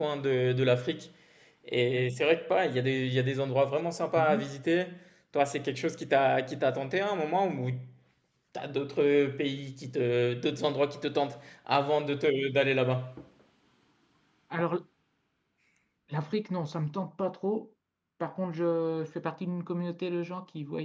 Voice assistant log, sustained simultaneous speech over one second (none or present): none